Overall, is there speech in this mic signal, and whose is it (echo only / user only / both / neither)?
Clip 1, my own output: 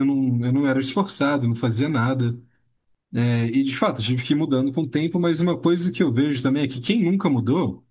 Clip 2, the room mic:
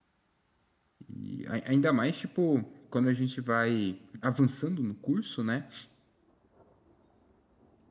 user only